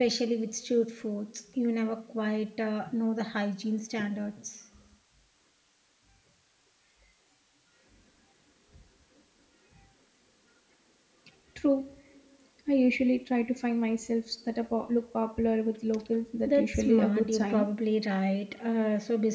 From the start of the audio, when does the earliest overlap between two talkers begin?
16.4 s

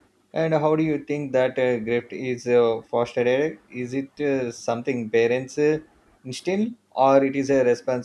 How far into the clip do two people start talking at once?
none

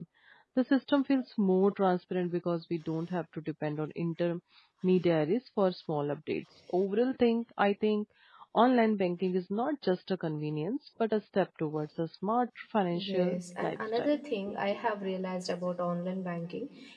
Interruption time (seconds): 12.9 s

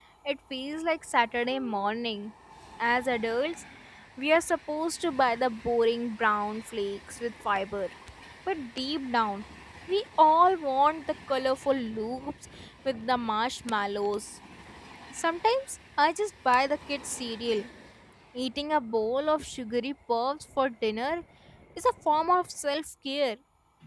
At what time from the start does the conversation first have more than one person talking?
none

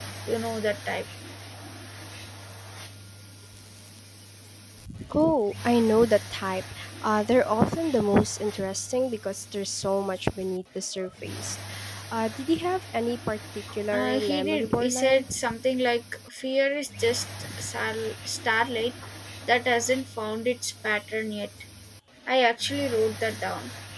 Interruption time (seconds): 13.9 s

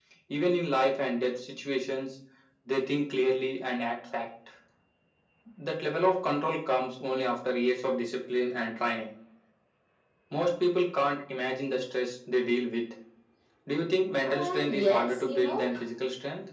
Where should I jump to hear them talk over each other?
14.2 s

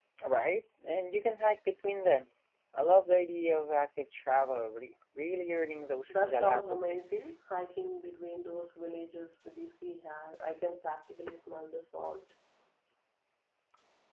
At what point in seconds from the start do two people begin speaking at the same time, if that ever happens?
6.0 s

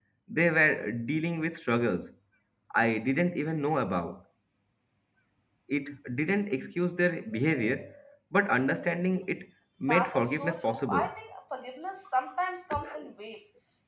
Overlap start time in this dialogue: 9.9 s

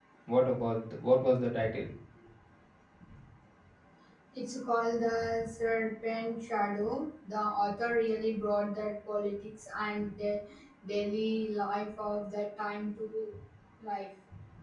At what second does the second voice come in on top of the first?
none

